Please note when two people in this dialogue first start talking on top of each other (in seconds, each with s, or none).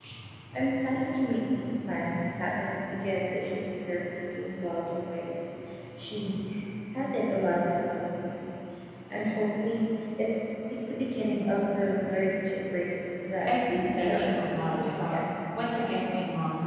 13.4 s